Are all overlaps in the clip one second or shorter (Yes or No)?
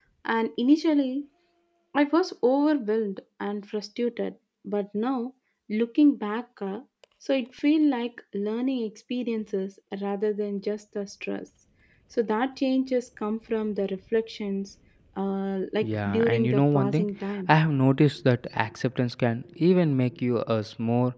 No